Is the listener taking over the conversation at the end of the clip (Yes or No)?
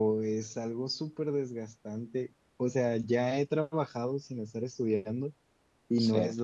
No